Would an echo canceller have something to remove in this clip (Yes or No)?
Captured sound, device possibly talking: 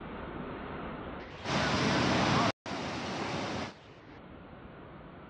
No